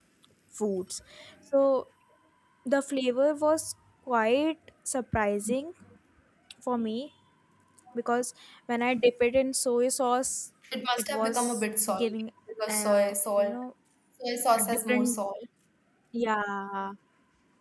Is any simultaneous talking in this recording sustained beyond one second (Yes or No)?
Yes